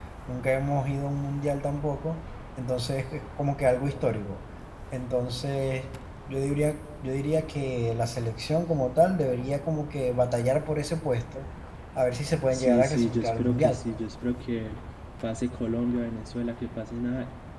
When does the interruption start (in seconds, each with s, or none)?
12.5 s